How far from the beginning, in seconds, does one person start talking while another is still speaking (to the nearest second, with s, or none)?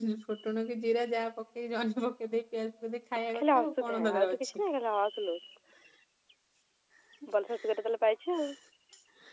3 s